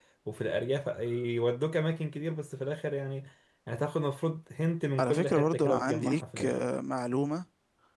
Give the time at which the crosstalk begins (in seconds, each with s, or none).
5.0 s